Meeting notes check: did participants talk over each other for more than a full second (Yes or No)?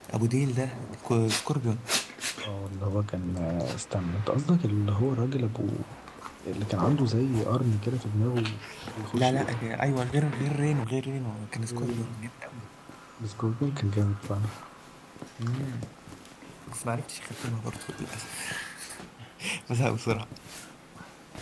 No